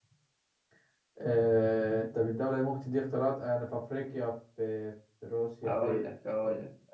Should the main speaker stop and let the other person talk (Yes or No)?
Yes